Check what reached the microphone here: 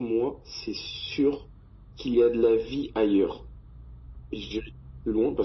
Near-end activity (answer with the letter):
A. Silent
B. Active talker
A